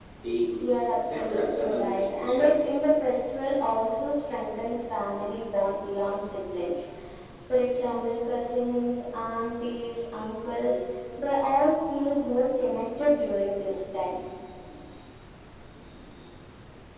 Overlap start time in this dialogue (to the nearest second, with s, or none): 1 s